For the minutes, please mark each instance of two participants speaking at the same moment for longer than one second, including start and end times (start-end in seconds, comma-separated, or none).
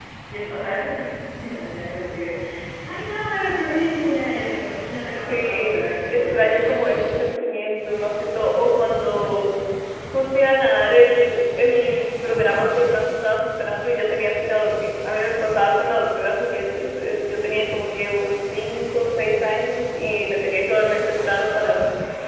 5.3-7.2